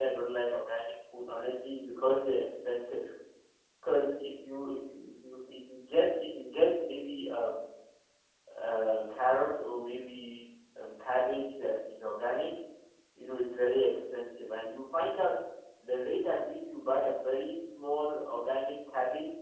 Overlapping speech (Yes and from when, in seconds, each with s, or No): No